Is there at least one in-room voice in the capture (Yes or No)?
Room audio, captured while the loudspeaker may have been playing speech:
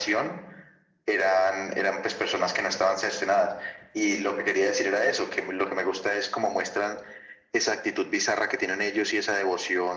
No